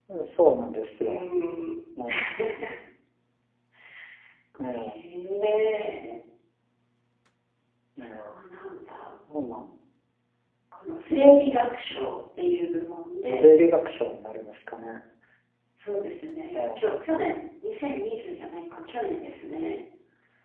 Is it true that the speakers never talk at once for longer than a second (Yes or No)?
Yes